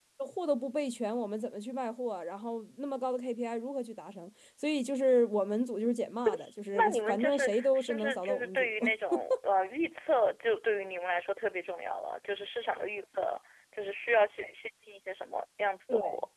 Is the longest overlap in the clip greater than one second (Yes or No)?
Yes